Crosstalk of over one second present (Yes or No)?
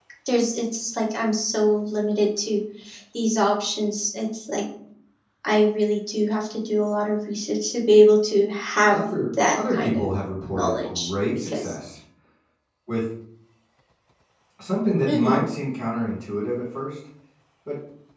Yes